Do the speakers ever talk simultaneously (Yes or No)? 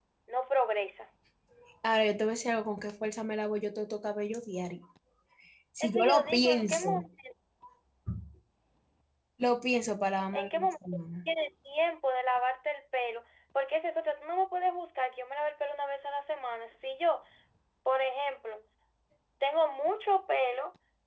Yes